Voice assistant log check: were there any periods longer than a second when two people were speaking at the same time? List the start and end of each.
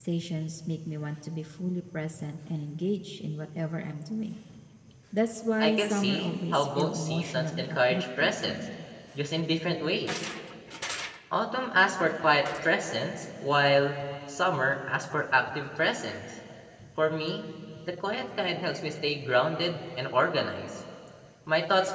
5.6-8.6

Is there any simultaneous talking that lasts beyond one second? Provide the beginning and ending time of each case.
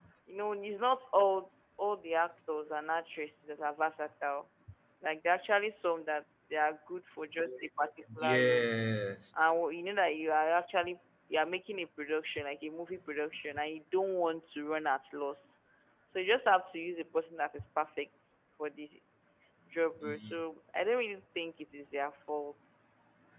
none

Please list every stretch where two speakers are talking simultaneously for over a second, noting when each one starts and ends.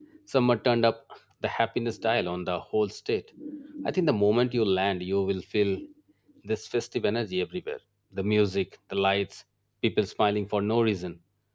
none

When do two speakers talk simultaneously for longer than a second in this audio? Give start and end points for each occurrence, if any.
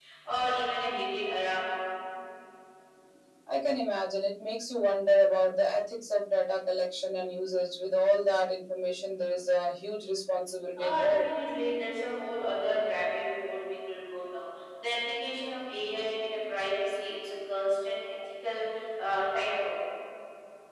none

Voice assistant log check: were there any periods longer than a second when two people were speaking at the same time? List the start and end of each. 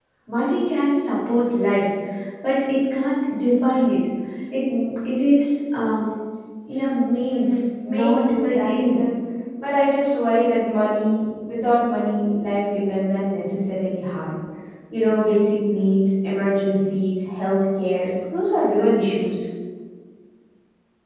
7.3-9.0

